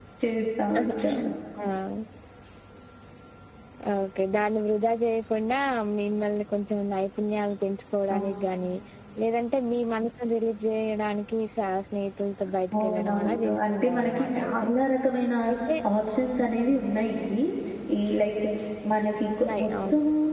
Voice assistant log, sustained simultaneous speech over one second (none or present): present